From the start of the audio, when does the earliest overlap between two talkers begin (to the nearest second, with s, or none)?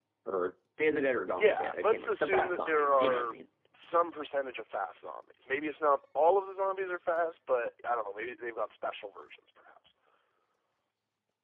1 s